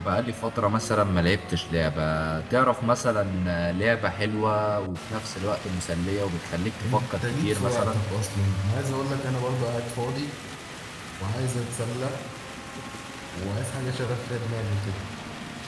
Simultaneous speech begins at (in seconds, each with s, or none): 6.8 s